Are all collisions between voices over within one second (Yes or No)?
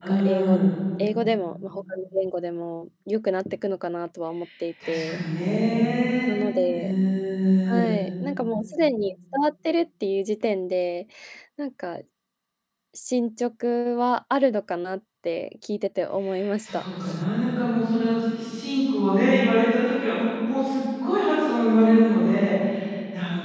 Yes